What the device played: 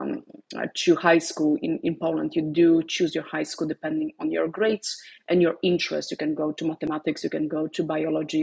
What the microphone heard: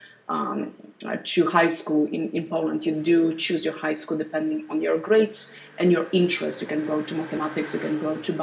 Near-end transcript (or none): none